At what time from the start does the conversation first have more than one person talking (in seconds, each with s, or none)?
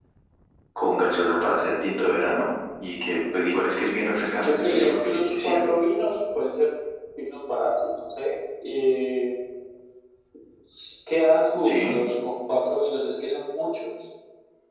4.4 s